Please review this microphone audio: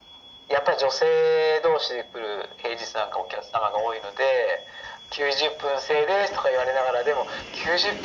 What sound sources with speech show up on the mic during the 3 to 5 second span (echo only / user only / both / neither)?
echo only